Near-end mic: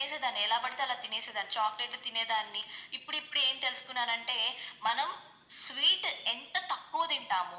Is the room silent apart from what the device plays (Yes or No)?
Yes